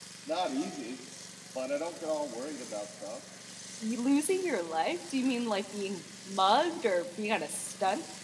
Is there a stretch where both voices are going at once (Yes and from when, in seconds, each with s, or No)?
No